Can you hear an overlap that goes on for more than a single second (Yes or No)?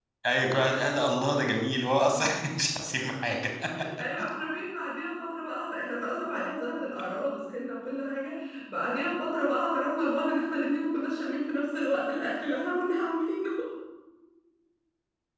No